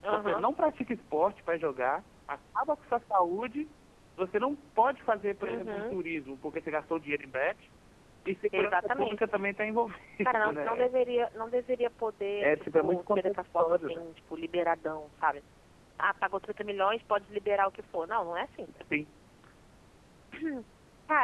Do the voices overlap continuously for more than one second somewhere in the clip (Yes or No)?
Yes